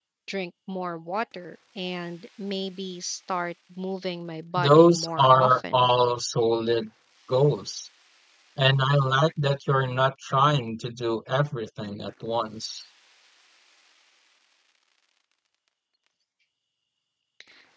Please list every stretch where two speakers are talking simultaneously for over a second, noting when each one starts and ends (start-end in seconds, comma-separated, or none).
4.6-5.9